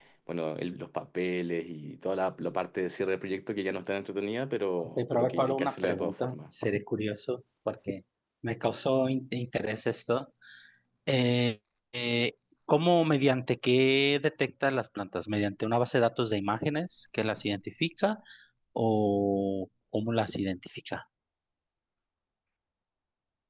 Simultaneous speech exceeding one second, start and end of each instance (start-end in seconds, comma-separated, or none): 4.8-6.4